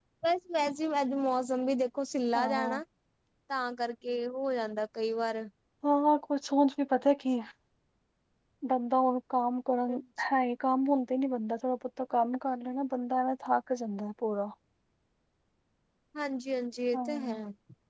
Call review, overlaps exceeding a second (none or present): none